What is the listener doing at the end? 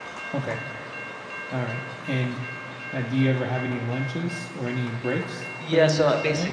taking over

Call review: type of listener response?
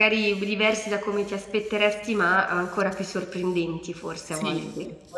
taking over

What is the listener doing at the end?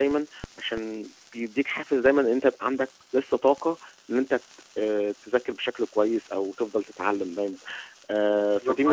taking over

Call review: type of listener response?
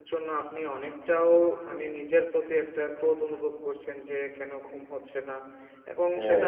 listening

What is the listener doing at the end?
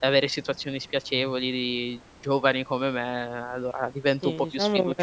taking over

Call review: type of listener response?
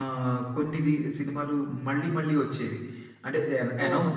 listening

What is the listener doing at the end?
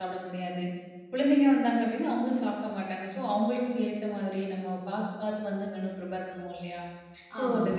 listening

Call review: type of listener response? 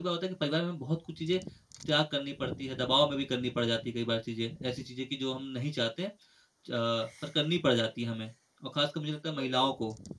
listening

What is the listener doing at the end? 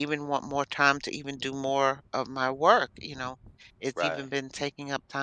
listening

